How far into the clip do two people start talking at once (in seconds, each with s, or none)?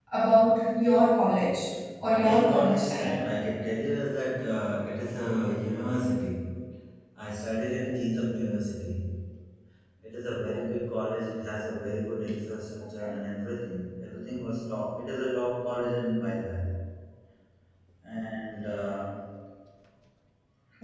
2.0 s